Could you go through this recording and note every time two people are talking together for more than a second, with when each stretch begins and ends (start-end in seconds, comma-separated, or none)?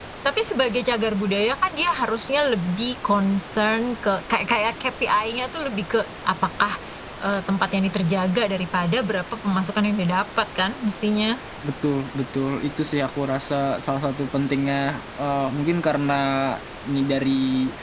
none